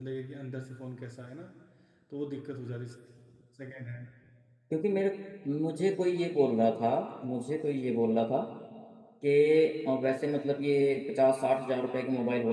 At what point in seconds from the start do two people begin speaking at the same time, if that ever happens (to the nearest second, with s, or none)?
none